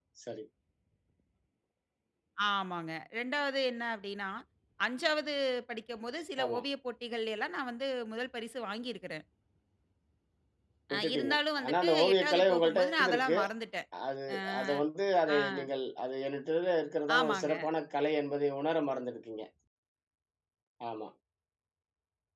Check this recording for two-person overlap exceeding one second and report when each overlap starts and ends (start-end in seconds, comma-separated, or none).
10.9-13.4